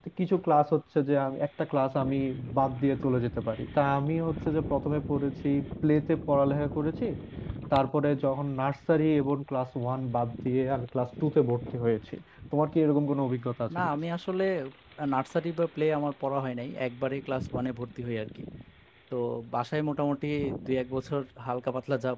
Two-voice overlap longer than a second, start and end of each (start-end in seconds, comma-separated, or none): none